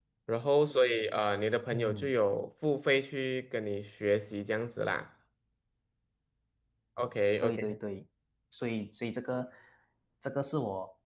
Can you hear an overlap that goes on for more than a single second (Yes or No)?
No